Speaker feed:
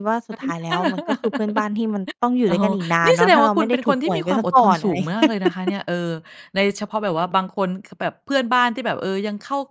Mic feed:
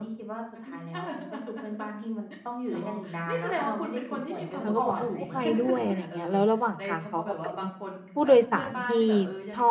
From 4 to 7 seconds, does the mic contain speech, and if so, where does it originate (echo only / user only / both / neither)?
both